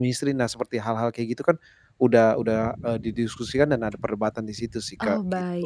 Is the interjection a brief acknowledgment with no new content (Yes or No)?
No